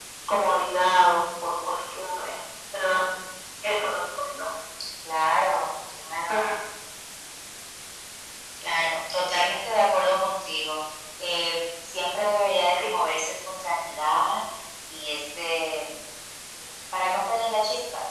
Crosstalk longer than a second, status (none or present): none